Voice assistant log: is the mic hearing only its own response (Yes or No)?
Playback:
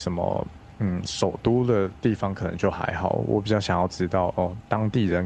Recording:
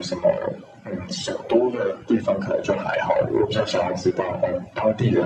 Yes